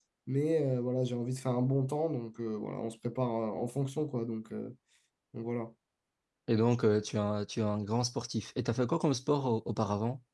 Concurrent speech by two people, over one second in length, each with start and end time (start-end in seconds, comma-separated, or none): none